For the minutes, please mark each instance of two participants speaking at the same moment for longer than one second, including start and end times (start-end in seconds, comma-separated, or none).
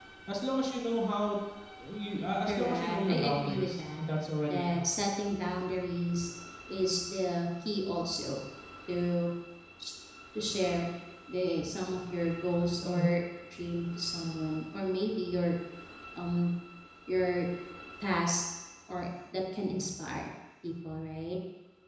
2.5-4.0